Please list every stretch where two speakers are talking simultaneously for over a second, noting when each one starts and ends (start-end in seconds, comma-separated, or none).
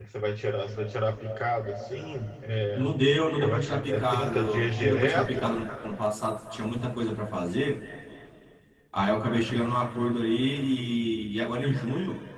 3.4-5.5